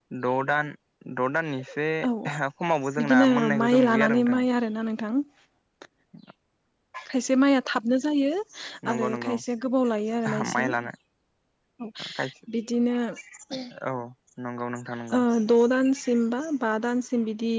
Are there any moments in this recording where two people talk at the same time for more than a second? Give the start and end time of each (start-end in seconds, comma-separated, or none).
3.0-4.4